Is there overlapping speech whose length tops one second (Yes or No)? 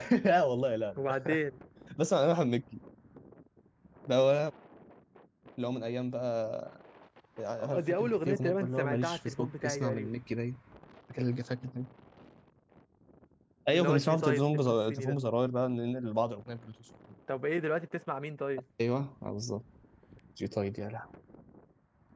Yes